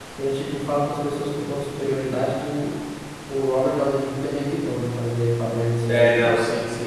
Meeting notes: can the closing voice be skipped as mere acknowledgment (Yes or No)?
No